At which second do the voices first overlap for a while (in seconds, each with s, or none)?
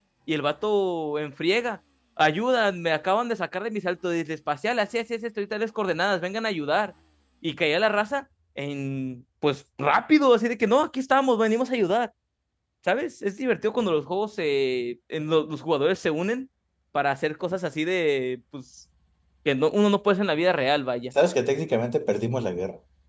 none